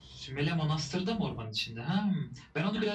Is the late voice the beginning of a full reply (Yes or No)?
No